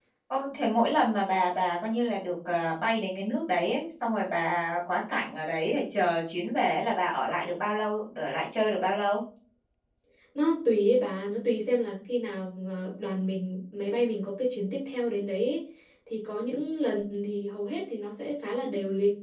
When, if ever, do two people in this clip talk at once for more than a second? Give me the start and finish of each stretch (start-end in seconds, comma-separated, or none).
none